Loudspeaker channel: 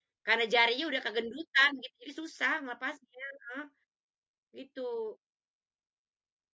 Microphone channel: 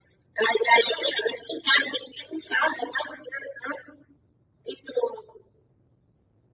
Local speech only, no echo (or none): none